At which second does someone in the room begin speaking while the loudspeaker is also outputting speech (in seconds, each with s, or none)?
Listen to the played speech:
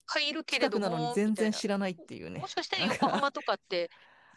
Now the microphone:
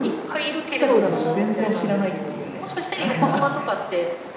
0.7 s